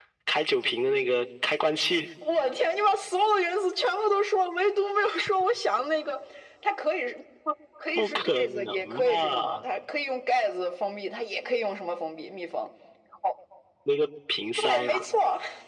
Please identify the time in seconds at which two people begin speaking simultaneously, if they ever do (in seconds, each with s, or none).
8.0 s